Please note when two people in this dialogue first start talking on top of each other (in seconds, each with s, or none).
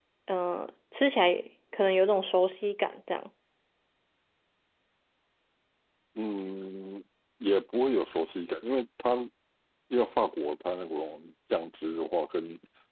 none